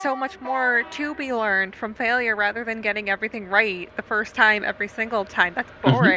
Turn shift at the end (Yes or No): Yes